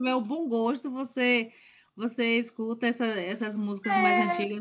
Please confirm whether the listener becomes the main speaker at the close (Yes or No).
No